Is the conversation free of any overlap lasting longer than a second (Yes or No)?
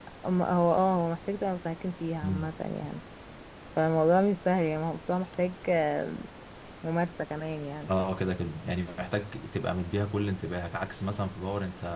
Yes